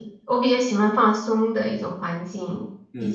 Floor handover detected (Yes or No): Yes